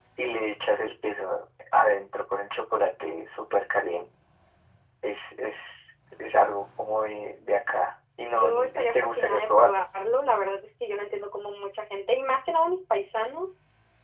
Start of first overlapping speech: 8.3 s

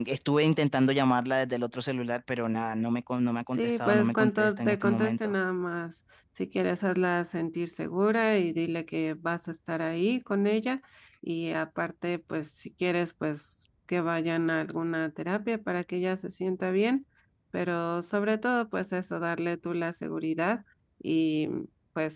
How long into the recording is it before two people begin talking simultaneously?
3.6 s

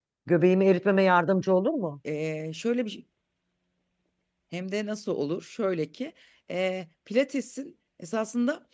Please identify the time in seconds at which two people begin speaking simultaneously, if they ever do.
none

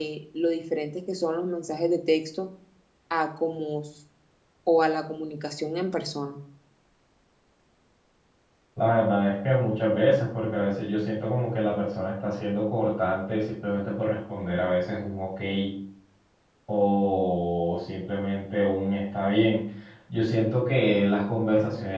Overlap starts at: none

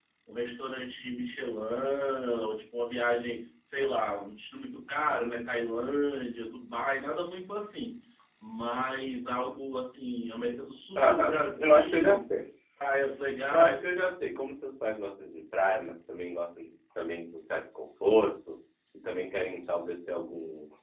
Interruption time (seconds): 11.0 s

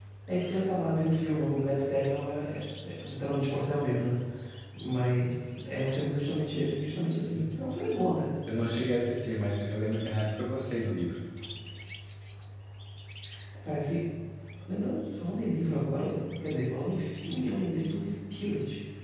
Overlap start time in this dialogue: none

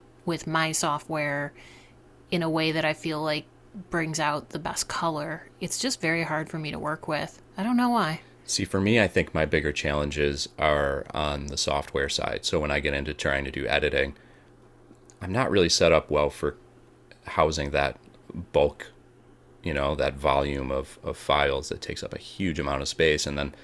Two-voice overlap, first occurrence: none

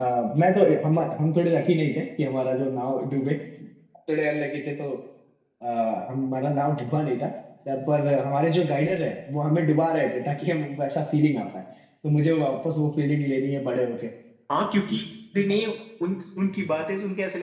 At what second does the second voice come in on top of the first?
none

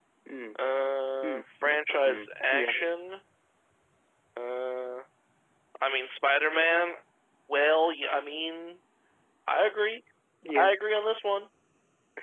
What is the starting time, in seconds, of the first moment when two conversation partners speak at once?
1.2 s

